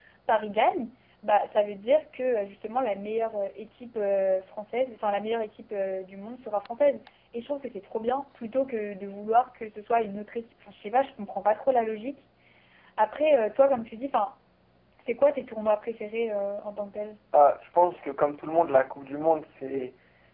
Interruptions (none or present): none